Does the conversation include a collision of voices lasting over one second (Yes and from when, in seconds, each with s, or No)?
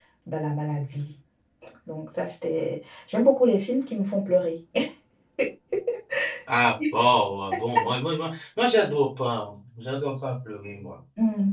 No